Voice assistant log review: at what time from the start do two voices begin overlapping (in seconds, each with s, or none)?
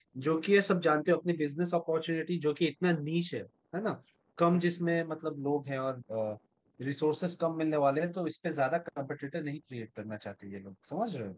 none